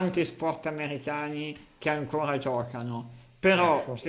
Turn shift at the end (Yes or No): No